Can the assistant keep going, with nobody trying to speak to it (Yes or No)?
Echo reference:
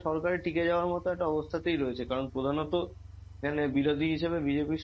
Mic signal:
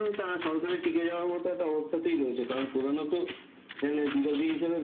Yes